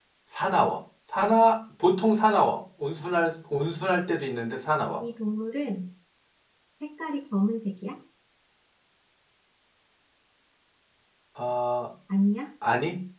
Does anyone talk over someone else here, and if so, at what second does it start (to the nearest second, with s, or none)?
none